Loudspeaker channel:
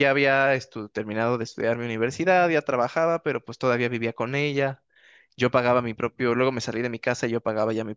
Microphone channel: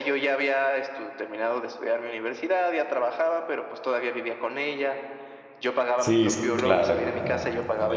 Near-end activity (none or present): present